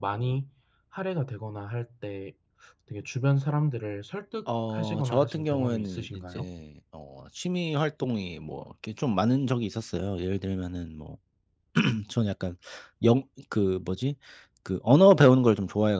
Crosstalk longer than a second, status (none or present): present